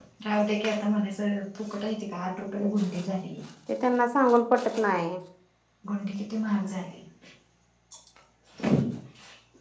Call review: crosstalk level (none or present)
none